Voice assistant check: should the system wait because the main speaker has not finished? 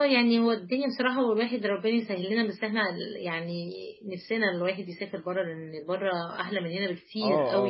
No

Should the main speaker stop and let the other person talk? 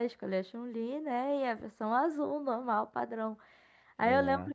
No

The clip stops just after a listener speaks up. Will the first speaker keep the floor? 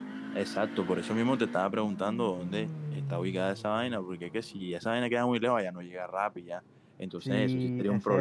No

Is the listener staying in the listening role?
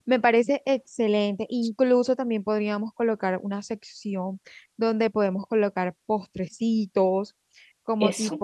Yes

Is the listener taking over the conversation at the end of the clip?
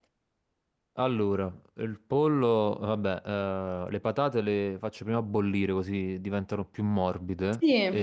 No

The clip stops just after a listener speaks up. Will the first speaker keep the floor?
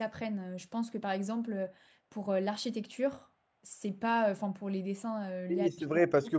No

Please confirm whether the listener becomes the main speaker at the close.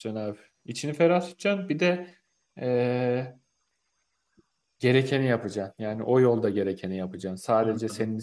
No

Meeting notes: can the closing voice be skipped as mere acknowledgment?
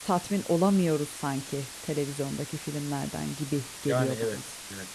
No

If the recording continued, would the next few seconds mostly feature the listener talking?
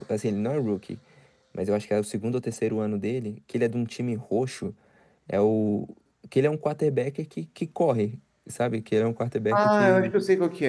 Yes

